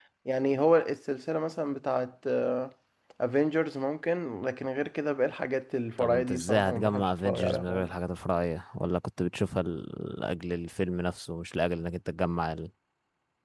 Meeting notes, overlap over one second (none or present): present